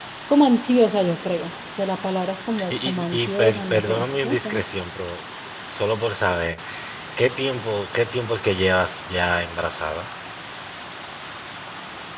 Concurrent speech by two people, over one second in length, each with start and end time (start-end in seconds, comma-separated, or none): 2.7-4.6